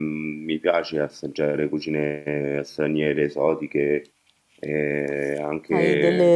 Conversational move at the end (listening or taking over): taking over